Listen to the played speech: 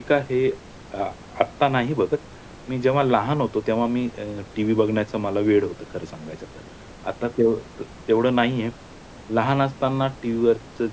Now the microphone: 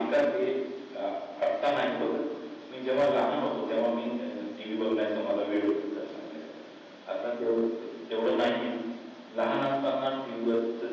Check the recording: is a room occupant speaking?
No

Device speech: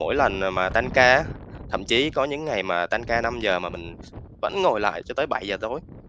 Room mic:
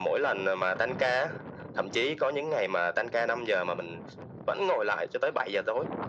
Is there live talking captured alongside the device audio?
No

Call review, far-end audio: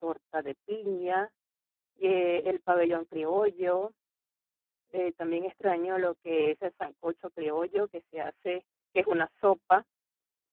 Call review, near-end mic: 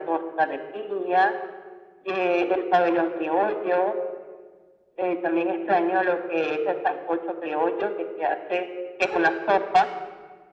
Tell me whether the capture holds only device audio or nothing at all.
Yes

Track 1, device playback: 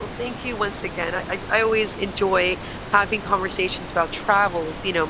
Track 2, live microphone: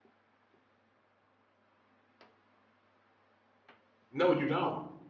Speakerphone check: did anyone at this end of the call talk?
Yes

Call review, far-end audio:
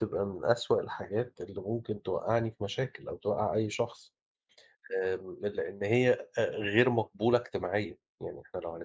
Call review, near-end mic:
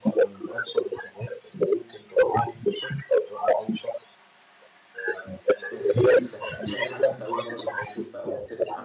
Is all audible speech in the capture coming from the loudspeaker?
No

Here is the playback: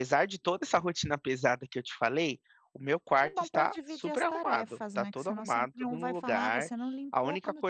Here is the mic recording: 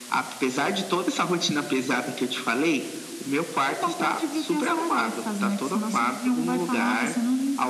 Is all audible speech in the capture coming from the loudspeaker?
Yes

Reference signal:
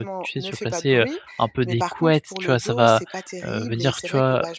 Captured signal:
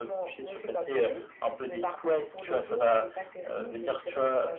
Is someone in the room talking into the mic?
No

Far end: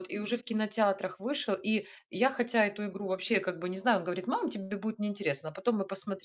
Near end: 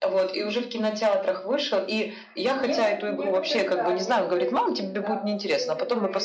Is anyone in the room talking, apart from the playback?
Yes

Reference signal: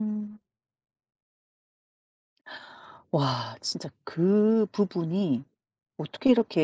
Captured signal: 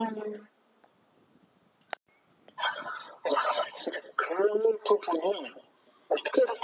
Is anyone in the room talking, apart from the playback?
No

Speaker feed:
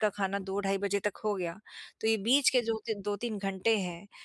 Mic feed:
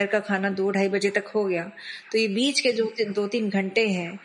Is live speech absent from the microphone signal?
Yes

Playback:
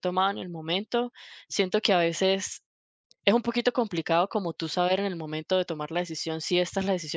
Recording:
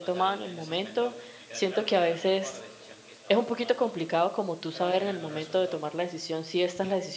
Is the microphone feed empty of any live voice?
No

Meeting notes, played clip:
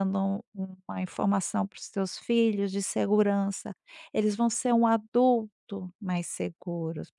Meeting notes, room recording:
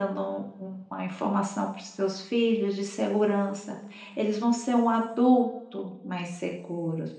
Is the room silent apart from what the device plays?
Yes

